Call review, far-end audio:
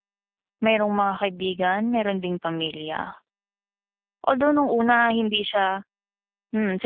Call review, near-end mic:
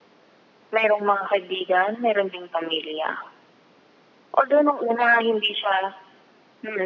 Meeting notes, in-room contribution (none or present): none